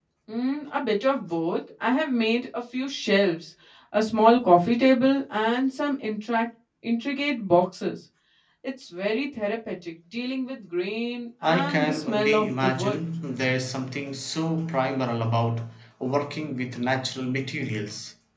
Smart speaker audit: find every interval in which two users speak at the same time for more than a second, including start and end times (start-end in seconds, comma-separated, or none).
11.4-13.0